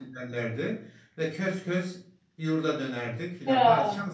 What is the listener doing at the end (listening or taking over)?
listening